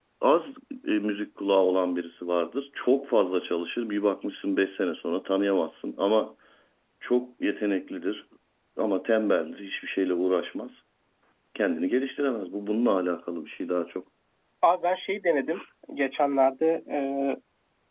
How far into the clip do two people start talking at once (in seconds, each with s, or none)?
none